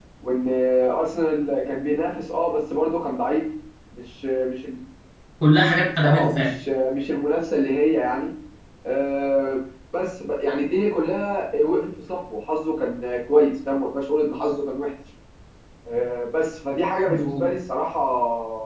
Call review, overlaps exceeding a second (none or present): none